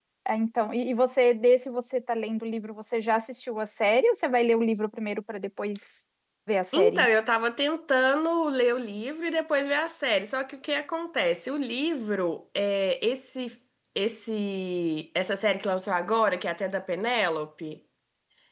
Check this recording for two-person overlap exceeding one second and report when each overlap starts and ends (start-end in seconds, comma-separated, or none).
none